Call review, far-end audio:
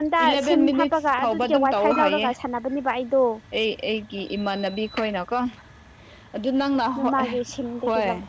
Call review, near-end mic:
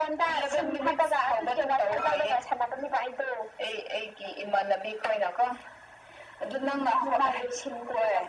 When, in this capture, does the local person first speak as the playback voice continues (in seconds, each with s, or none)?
none